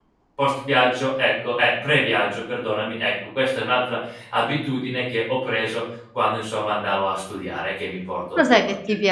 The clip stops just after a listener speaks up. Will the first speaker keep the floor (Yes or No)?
No